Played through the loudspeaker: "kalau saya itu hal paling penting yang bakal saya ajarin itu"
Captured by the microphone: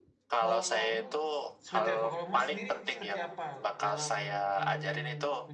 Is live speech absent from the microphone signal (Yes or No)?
No